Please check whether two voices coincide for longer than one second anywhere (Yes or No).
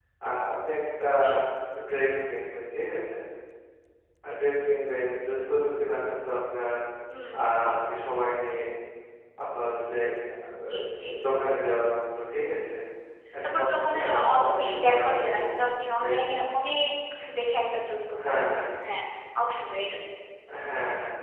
Yes